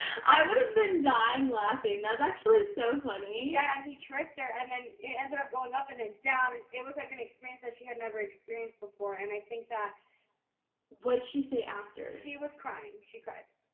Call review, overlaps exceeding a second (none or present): none